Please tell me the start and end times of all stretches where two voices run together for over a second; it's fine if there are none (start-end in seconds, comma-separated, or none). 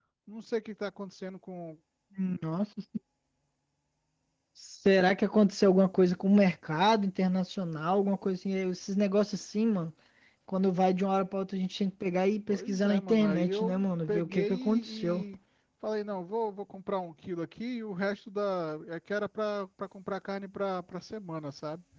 12.5-15.2